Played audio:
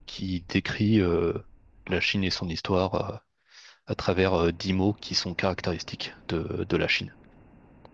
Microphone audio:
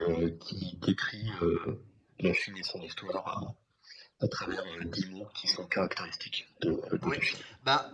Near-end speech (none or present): present